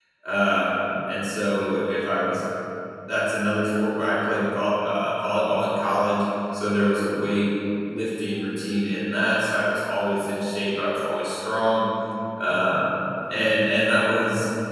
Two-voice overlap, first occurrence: none

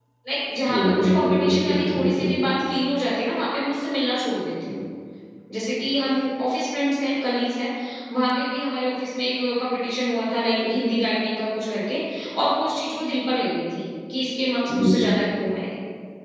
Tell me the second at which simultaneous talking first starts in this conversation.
0.7 s

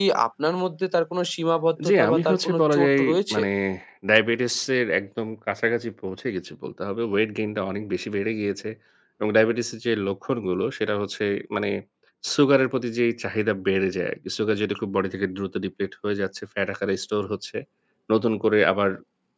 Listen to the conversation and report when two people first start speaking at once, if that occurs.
1.8 s

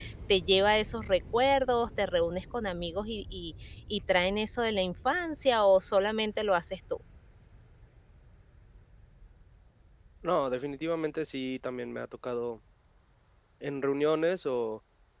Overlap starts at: none

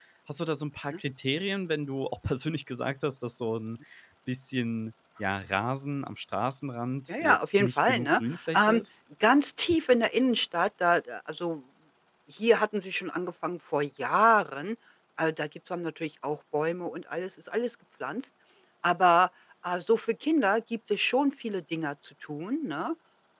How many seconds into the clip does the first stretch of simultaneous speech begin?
7.1 s

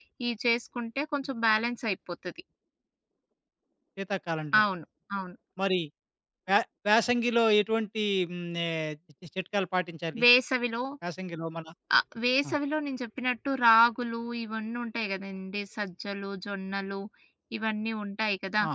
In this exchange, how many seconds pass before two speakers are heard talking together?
none

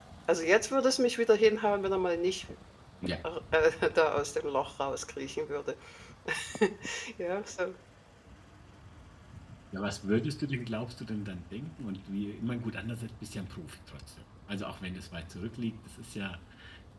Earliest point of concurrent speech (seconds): none

